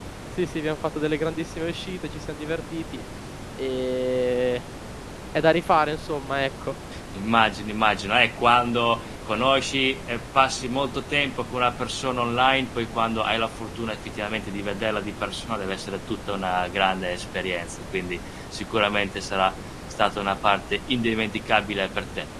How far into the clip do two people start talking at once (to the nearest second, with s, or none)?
none